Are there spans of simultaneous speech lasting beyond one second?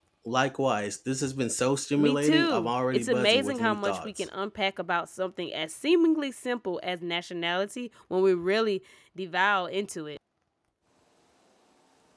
Yes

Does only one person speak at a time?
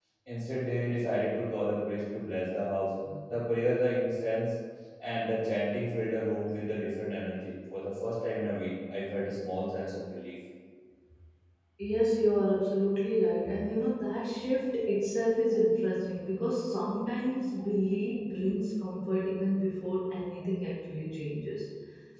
Yes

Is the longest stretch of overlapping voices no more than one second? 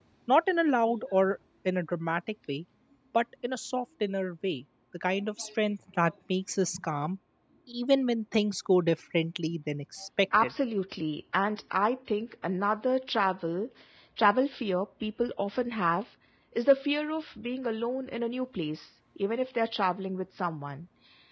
Yes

